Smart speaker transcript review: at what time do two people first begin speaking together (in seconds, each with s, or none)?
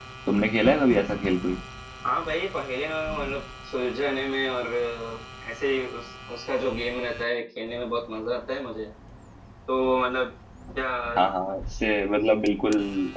none